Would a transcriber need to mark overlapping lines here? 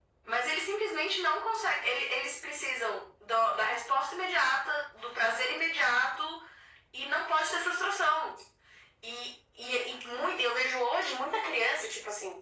No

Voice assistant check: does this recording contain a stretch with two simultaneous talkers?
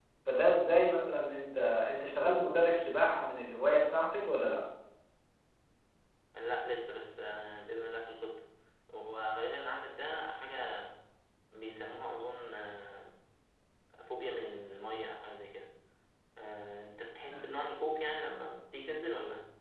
No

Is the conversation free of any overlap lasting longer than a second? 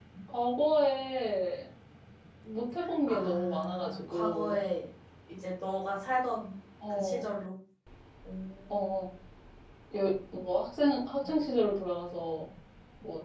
No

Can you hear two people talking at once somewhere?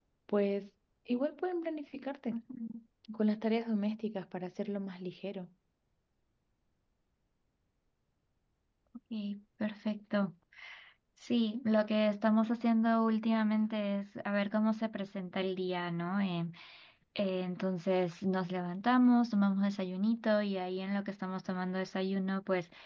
No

